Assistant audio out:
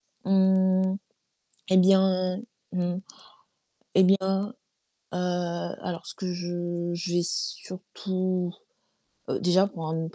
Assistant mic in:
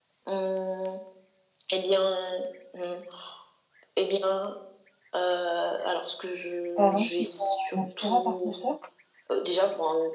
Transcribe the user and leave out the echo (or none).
par exemple, qui t'ont inspirée à part ta soeur?